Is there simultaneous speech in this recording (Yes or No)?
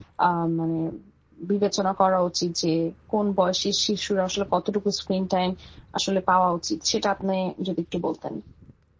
No